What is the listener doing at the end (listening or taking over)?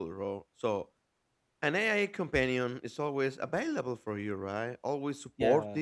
listening